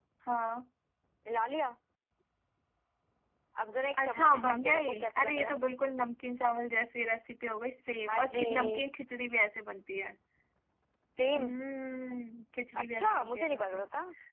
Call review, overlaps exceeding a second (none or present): present